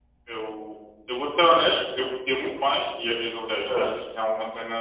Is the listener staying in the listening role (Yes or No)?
Yes